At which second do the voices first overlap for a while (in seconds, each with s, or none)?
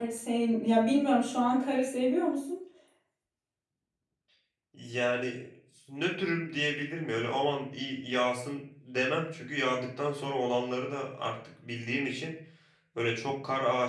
none